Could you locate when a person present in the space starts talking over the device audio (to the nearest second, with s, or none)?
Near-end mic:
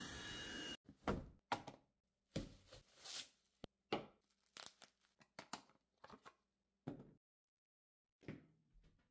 none